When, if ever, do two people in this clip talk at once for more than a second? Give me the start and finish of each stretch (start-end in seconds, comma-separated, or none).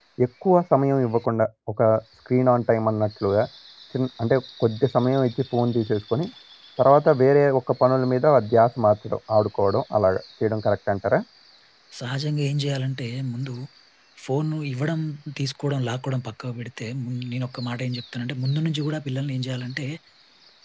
none